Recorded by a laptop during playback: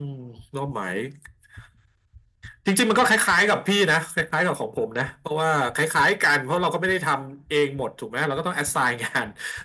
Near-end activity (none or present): none